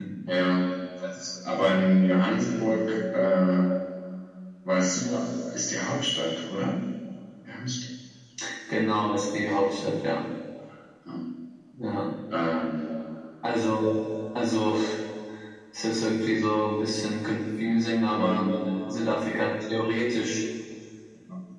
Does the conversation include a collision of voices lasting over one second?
No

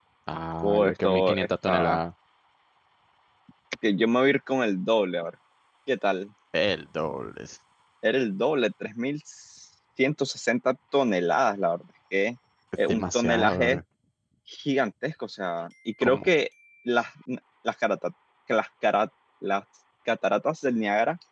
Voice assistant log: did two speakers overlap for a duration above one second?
Yes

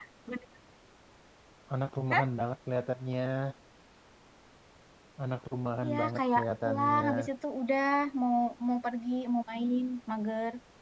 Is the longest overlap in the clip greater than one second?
Yes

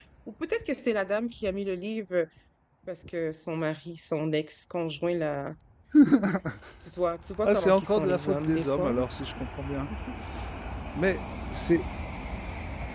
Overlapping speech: Yes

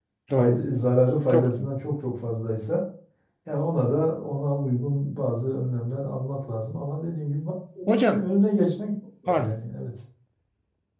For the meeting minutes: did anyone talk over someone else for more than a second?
No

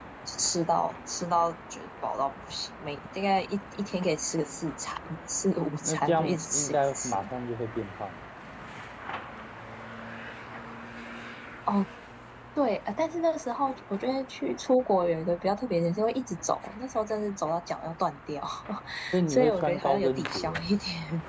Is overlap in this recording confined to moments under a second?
No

